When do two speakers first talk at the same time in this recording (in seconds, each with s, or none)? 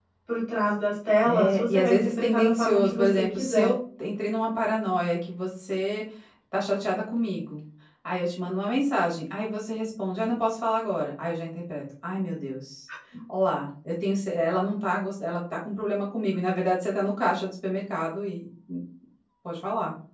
1.2 s